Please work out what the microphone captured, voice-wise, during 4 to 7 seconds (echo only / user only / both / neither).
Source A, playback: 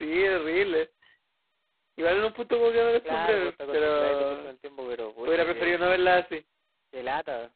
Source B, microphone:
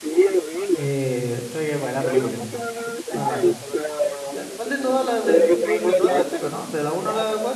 both